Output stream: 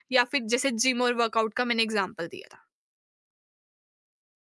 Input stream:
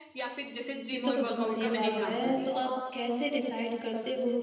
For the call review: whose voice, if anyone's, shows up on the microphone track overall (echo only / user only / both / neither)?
both